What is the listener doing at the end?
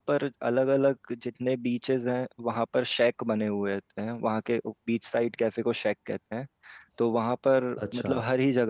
listening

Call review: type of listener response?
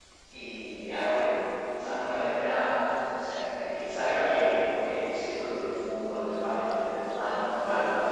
listening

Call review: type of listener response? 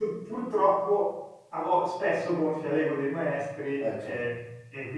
listening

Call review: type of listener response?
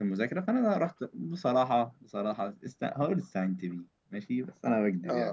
taking over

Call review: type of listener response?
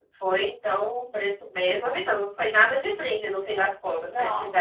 taking over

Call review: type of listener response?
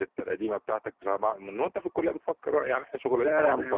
taking over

